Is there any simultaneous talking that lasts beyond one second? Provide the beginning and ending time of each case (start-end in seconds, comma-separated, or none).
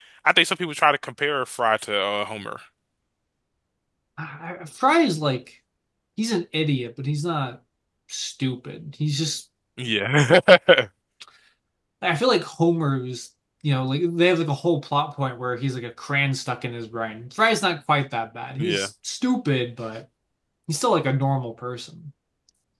none